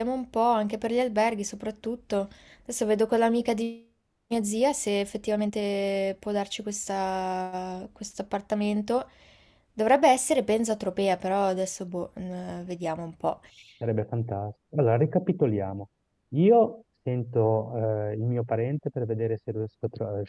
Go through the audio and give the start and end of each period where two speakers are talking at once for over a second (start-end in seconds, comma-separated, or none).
none